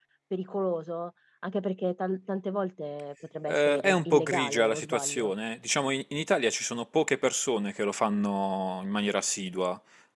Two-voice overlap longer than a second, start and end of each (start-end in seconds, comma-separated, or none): 3.5-5.3